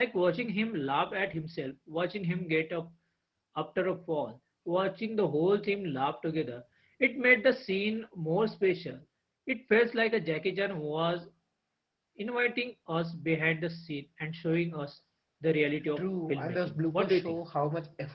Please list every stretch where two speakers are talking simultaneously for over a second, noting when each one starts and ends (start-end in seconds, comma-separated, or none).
16.0-17.4